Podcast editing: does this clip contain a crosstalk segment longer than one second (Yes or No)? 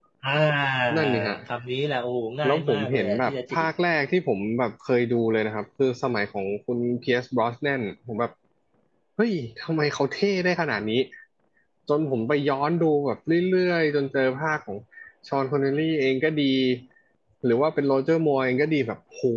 Yes